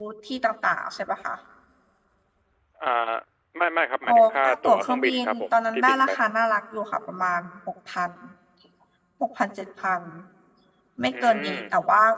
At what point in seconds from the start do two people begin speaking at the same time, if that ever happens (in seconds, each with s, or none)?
4.0 s